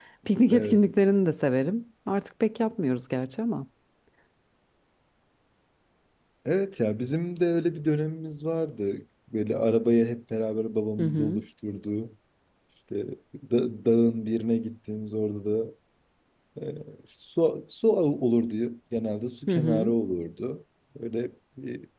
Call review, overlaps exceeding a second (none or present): none